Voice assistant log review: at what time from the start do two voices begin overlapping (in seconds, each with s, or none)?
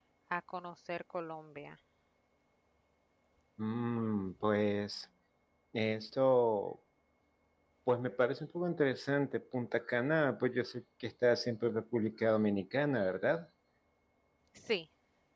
none